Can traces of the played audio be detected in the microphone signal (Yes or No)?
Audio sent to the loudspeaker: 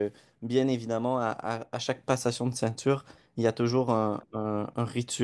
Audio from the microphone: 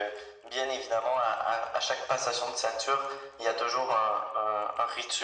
Yes